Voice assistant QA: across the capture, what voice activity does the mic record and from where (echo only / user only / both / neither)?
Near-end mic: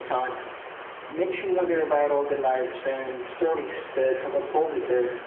echo only